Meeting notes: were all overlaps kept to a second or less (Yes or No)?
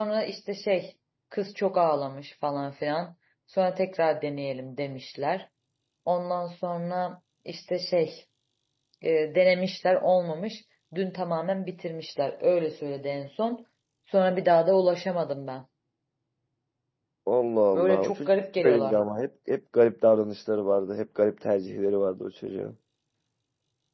No